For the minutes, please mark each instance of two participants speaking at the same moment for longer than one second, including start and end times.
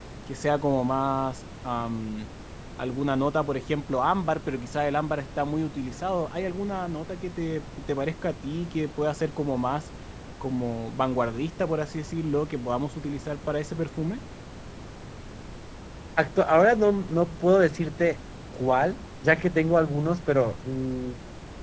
none

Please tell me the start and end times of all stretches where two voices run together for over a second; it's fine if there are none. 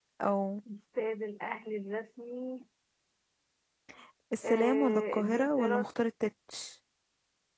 4.4-5.8

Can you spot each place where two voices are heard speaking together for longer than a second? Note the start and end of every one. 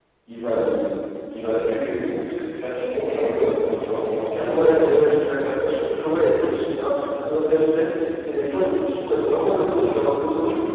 none

